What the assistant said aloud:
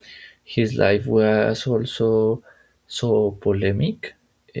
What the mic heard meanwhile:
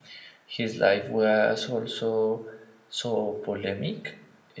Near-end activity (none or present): none